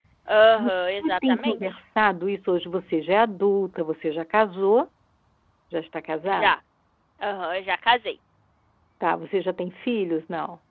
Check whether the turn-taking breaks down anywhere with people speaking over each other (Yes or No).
Yes